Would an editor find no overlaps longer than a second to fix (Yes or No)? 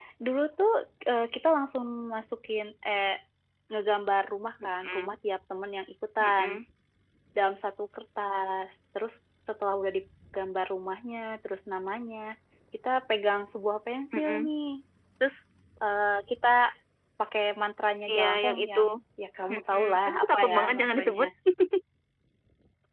No